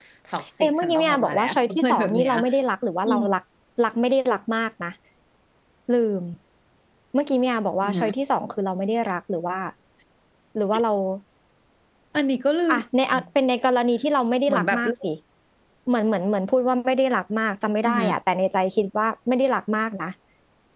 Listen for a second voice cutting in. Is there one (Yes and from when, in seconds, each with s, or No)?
Yes, from 0.6 s